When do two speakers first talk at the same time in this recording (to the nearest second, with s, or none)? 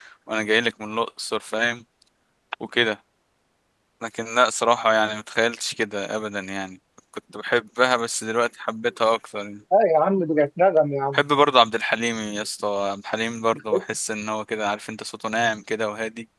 none